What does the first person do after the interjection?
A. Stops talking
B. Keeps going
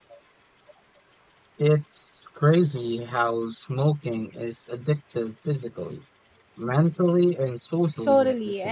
A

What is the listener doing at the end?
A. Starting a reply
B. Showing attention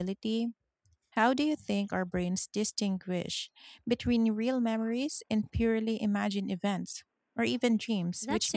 A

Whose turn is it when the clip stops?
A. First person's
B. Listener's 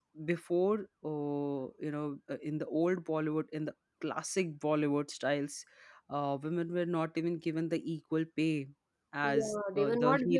B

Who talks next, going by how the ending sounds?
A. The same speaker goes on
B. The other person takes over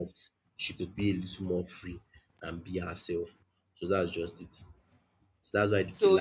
B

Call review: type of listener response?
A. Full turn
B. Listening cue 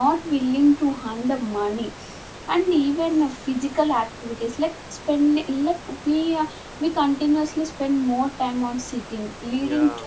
B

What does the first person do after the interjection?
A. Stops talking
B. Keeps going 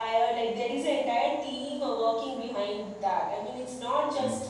B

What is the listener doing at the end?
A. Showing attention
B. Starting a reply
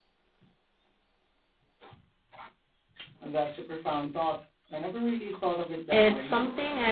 B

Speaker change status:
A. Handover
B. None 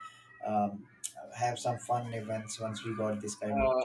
A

